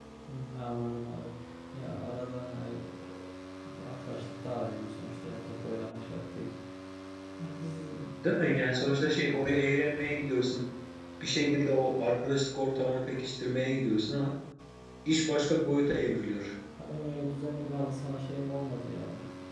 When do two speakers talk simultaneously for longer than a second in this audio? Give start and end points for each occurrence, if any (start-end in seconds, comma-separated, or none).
none